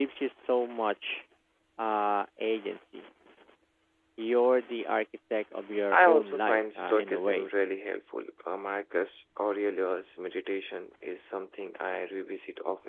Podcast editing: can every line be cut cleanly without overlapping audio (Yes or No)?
No